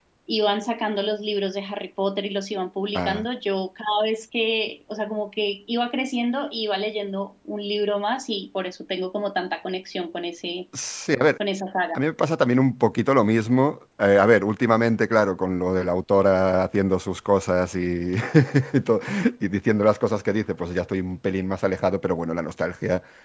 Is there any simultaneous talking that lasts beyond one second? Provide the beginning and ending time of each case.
none

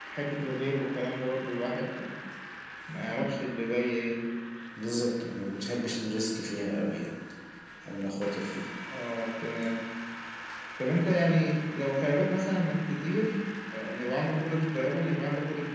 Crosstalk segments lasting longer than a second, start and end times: none

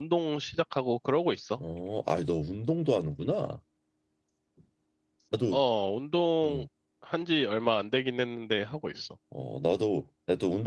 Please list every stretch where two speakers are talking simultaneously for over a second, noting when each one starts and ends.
none

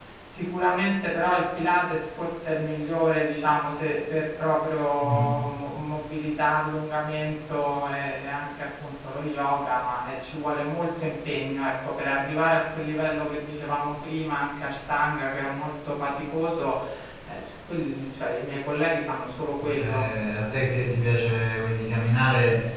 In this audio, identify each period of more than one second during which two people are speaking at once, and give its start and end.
none

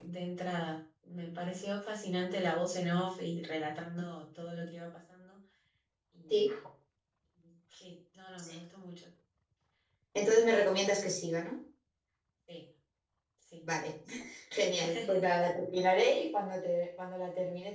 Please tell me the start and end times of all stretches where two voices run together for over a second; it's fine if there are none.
none

